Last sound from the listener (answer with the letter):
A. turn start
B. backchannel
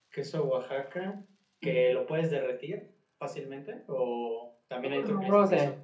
B